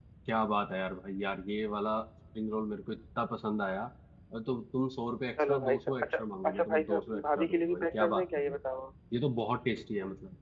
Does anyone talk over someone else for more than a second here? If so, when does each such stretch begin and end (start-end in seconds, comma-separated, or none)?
5.5-8.6